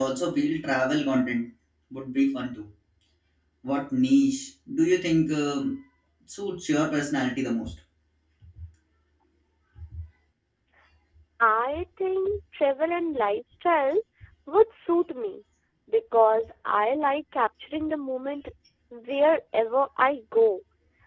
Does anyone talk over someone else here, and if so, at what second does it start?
none

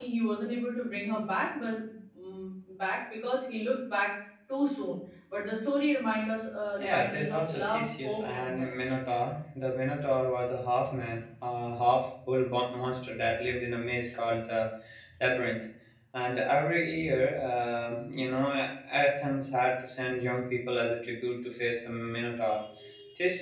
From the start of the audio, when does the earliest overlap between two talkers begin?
7 s

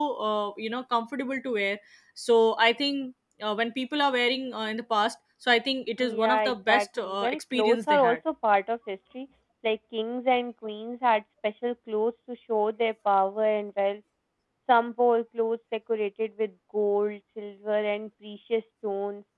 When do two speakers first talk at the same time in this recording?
6 s

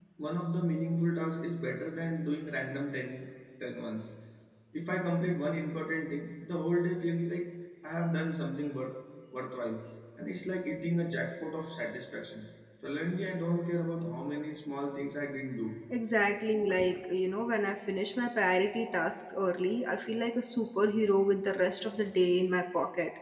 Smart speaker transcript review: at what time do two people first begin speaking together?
none

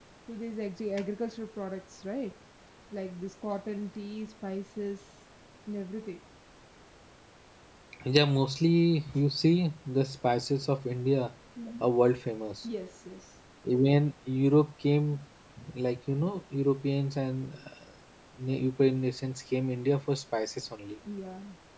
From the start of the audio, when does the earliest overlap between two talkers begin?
none

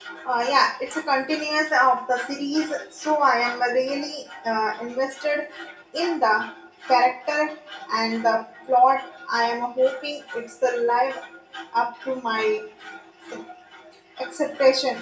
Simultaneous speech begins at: none

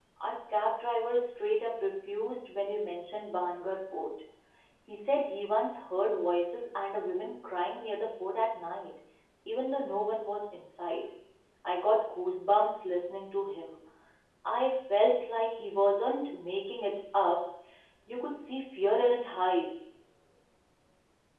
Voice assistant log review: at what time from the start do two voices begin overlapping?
none

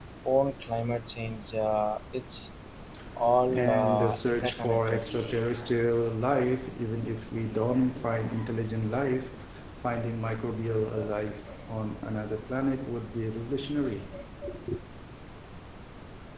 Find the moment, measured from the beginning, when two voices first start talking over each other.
3 s

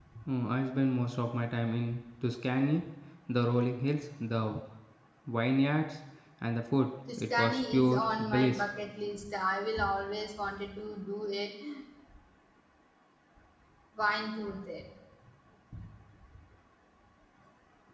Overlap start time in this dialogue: 7 s

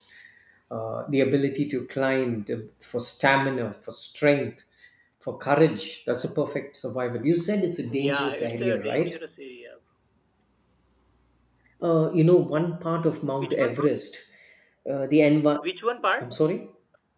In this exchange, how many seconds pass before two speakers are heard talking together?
8 s

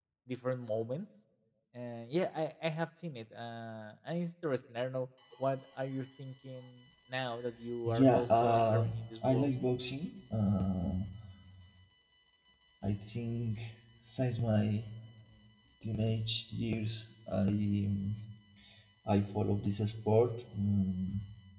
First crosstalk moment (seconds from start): 8 s

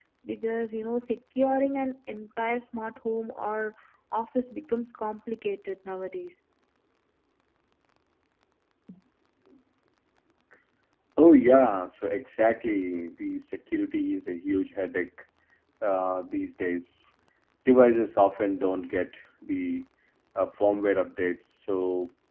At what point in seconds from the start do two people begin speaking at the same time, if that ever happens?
none

